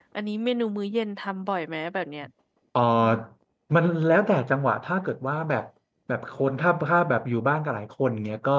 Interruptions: none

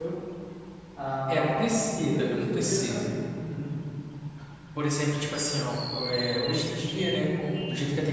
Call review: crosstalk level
present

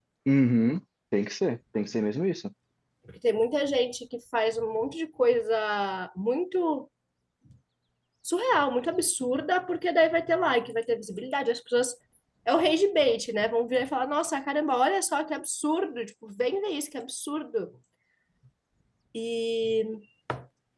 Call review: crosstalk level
none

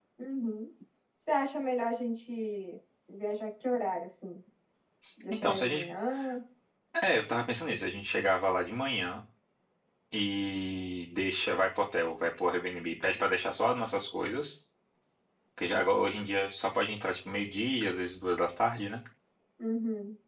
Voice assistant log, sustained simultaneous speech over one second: none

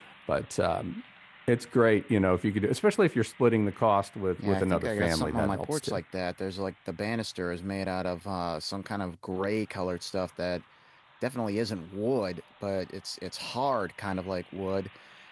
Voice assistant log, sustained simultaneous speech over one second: present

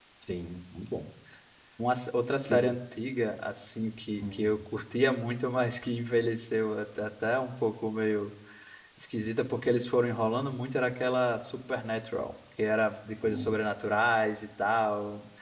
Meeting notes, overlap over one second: none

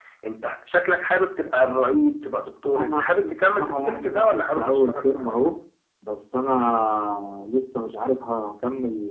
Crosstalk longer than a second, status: present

